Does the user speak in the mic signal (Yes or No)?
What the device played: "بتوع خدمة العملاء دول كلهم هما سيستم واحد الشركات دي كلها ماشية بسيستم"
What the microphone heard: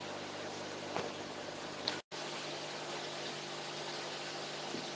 No